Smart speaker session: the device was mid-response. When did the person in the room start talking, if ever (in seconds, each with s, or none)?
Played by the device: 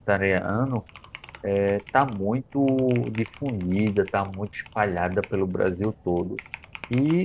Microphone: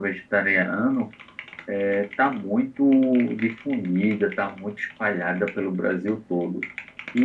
none